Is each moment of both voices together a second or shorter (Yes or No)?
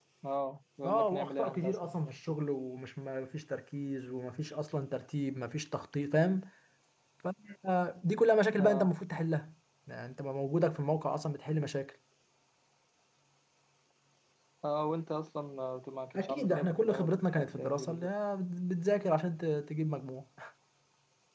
No